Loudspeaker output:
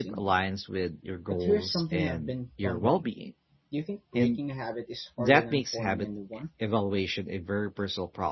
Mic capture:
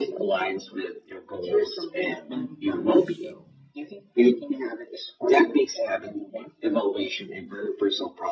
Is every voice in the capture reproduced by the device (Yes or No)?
No